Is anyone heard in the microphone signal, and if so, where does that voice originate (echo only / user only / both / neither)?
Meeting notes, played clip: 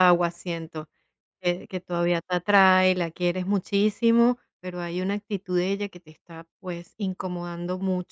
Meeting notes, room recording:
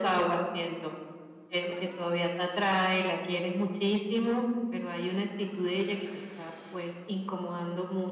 echo only